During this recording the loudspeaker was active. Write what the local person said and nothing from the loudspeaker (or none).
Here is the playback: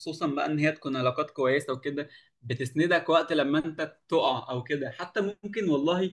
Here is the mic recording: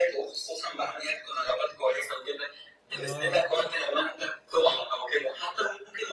اه